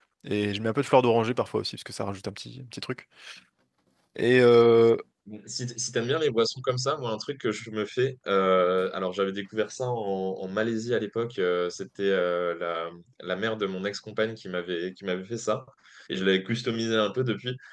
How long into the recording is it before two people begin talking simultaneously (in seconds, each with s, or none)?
none